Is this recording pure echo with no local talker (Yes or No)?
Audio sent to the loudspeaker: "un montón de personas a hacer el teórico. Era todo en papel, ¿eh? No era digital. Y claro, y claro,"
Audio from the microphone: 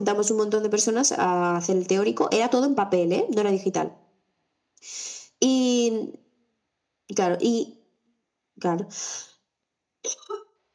Yes